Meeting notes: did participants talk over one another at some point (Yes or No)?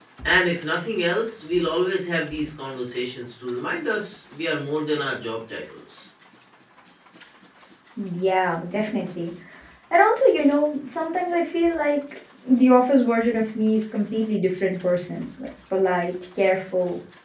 No